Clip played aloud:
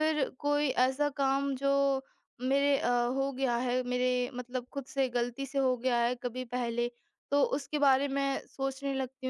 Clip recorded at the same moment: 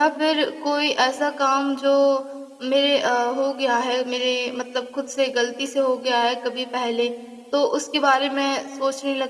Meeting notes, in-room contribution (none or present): none